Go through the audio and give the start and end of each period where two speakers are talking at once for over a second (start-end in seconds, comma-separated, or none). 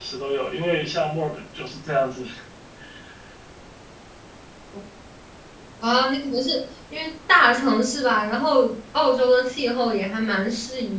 none